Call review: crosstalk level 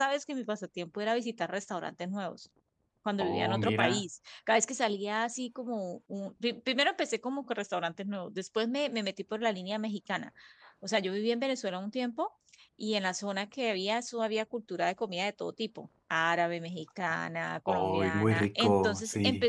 present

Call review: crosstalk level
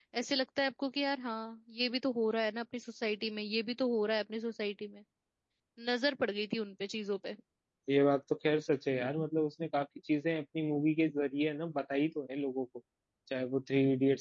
none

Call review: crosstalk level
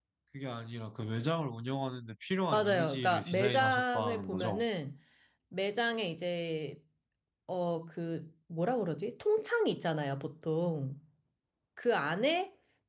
present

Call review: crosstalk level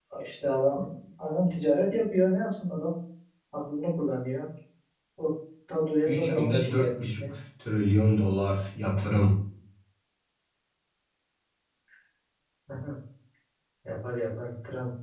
present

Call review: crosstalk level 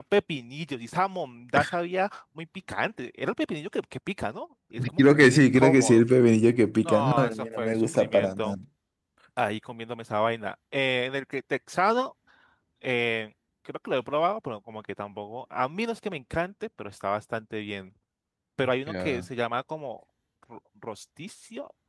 present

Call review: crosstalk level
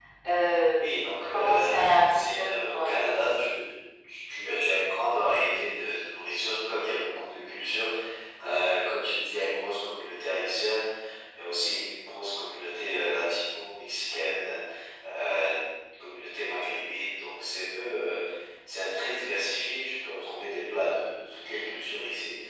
present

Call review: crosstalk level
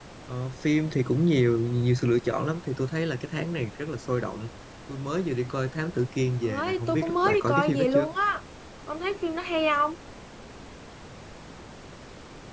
present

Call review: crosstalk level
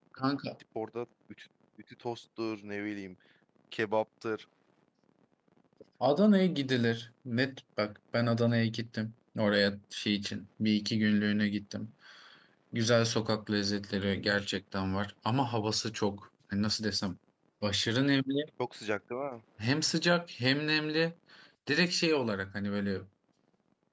none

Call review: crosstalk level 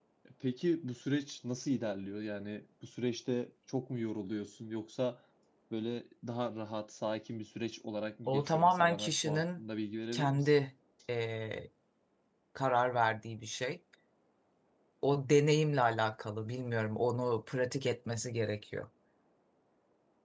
present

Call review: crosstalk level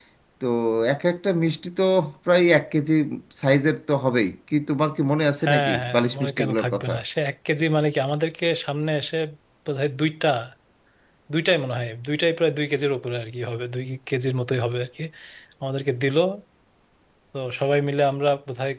present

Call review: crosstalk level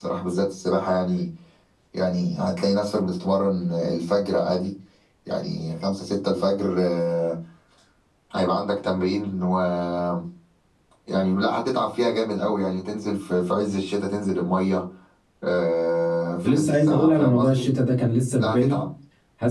present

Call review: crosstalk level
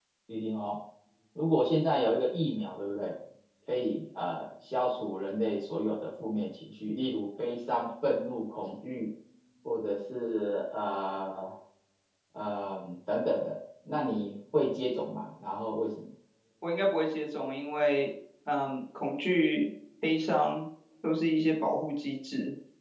none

